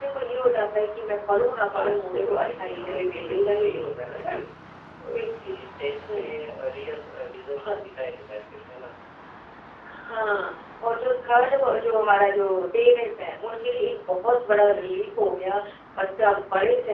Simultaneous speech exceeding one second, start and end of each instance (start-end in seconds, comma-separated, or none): 1.7-4.4